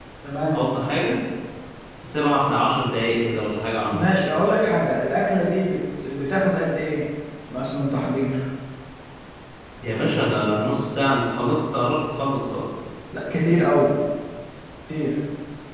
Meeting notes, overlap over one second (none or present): none